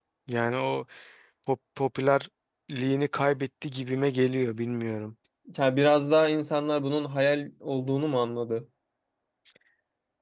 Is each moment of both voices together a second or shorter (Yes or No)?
Yes